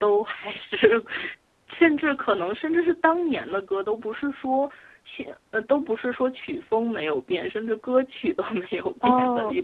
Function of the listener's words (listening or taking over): taking over